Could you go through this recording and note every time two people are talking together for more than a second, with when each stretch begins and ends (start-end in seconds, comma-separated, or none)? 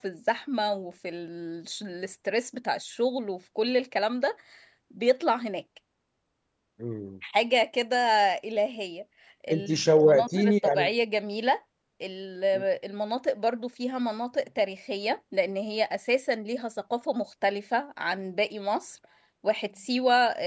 9.5-10.9